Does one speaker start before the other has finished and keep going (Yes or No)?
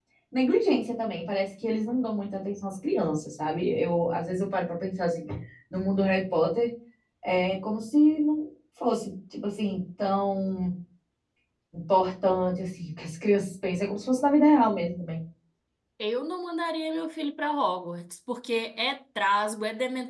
No